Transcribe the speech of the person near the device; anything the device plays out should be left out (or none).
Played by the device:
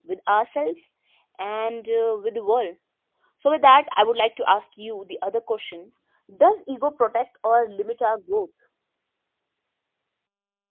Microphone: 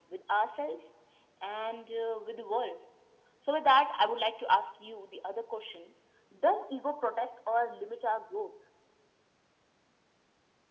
none